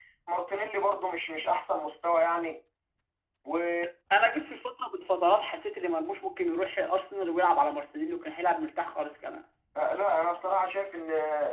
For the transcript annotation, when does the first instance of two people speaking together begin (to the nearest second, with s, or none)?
none